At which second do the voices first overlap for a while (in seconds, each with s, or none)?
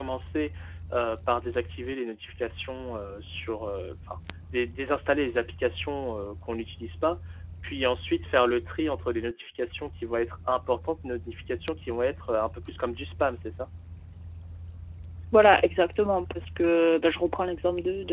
none